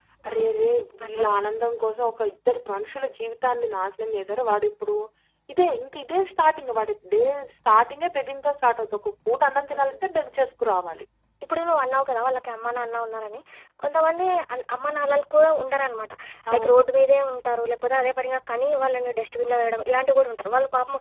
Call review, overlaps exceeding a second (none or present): present